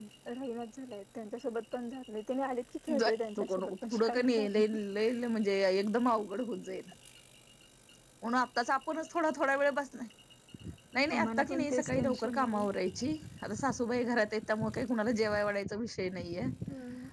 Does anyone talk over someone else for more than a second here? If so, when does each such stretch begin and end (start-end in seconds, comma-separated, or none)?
3.0-4.7, 11.2-12.7